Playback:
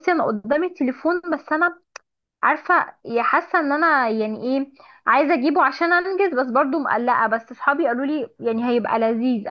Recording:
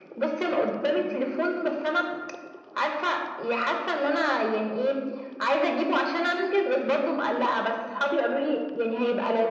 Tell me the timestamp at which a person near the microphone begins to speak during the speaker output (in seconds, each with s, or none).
none